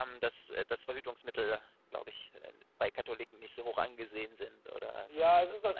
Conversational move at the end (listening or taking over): taking over